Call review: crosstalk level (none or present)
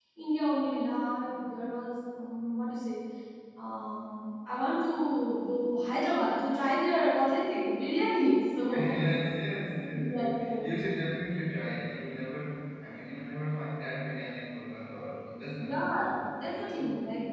present